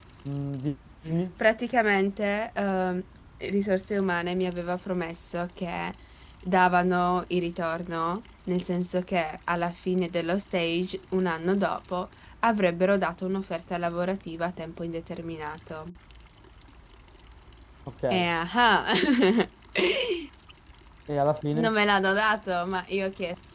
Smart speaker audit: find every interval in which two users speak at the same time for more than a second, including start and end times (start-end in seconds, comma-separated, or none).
none